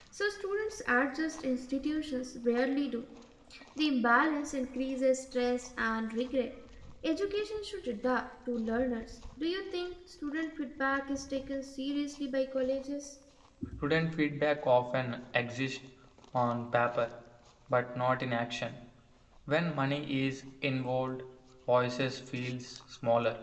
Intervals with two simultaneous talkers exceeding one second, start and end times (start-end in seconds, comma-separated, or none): none